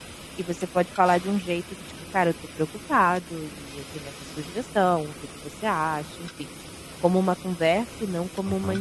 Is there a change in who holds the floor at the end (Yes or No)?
Yes